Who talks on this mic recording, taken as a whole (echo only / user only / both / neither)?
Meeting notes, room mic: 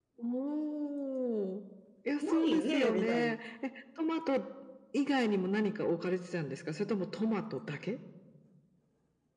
both